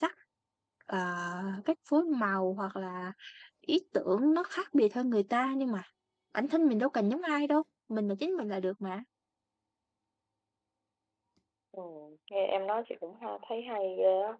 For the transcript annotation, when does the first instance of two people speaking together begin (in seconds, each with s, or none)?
none